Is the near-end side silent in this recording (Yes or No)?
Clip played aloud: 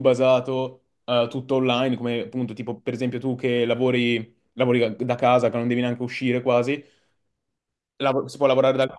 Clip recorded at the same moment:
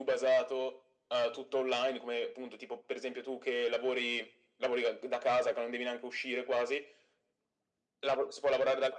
Yes